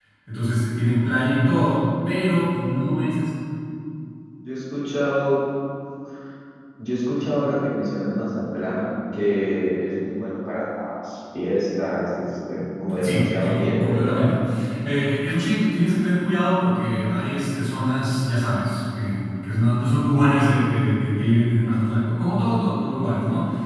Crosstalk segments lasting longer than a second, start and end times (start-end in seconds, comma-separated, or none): 13.0-14.3